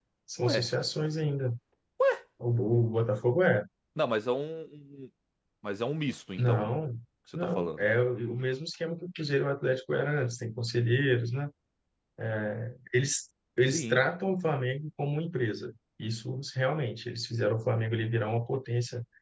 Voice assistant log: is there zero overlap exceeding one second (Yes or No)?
Yes